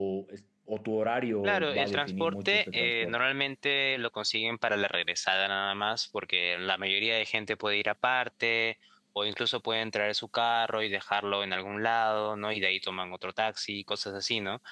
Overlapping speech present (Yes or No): Yes